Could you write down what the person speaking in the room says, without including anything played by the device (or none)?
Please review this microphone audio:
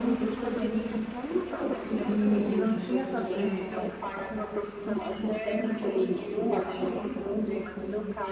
e, e não tinha essa, eh,